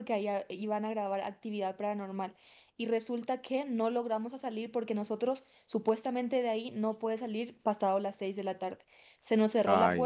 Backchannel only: Yes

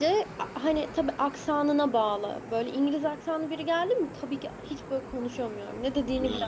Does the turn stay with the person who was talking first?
No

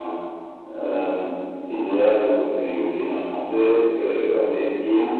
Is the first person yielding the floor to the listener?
No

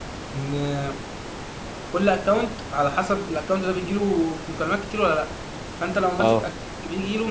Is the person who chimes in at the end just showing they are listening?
Yes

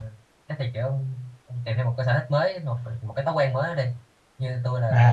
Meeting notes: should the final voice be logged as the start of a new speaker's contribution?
Yes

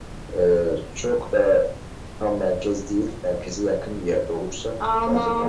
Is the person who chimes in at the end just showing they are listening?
No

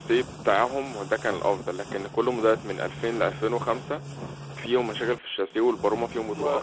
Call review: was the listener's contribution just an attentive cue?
No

